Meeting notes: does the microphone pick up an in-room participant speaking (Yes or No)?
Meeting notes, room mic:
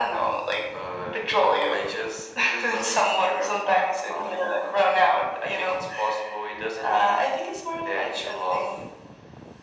No